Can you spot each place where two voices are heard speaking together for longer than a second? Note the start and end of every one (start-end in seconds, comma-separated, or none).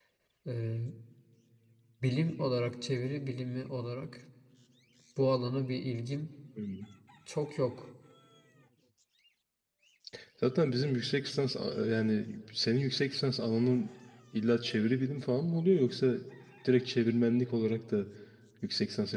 none